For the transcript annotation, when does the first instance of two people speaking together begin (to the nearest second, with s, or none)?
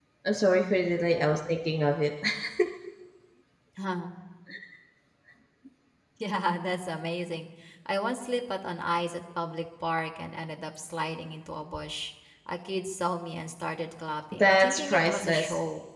14 s